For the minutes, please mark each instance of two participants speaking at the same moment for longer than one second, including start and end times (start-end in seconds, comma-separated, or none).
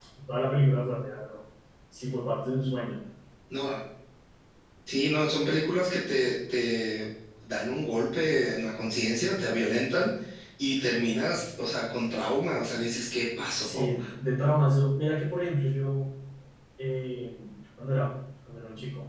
none